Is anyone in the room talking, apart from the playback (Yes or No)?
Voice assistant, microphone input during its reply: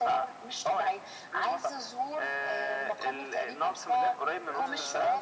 Yes